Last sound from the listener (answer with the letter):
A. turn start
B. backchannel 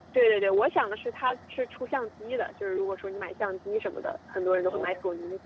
B